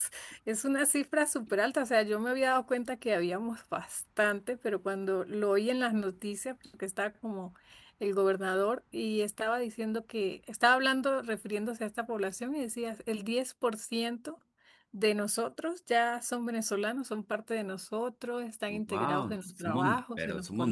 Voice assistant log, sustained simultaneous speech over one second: present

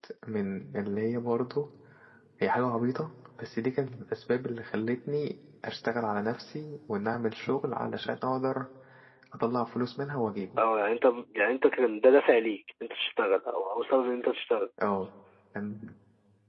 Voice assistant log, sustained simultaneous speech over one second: none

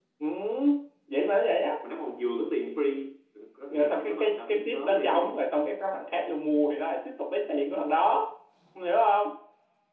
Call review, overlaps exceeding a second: present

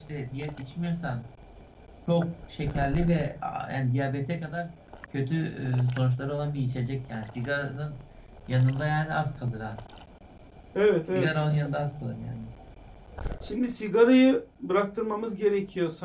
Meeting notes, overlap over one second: none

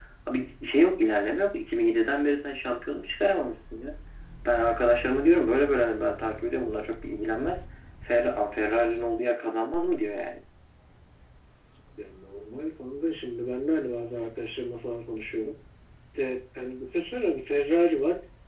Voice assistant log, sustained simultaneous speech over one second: none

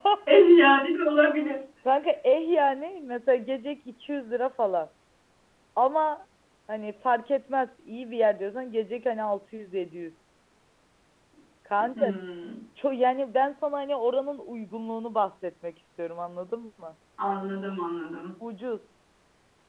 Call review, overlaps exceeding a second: none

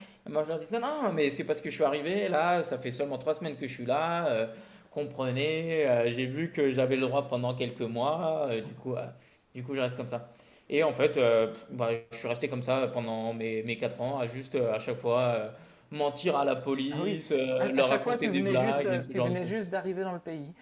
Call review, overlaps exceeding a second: present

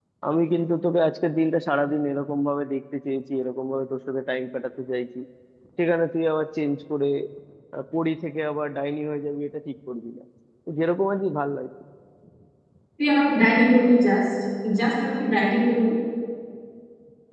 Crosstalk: none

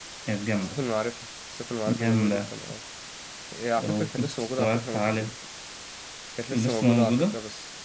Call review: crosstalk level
present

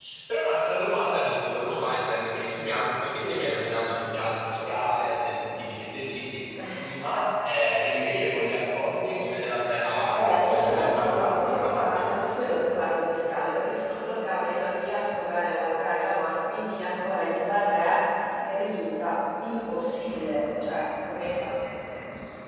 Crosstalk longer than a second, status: present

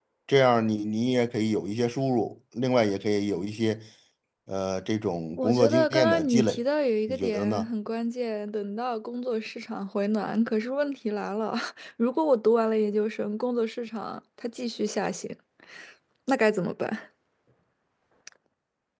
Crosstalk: present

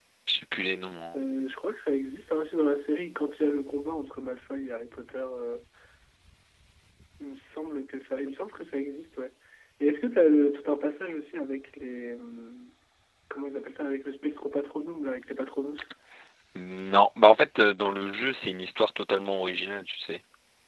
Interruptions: none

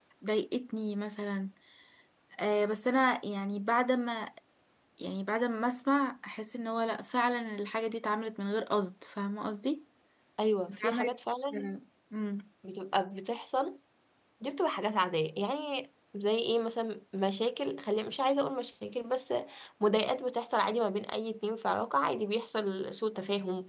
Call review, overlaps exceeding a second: none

